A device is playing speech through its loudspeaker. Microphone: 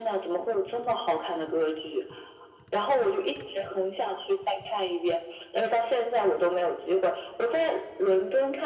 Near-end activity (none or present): none